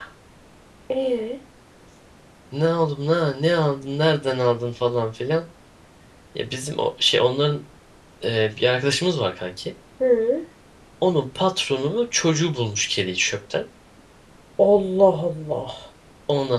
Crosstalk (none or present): none